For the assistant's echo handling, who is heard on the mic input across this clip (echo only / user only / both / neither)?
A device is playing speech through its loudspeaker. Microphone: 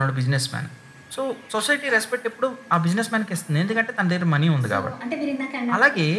both